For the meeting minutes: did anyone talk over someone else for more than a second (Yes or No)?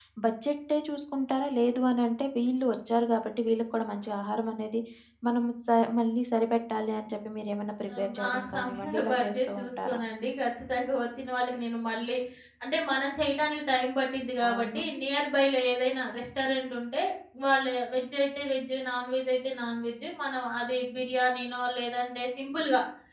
Yes